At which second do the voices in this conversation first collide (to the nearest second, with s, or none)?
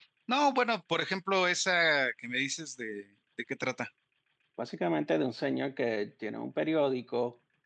none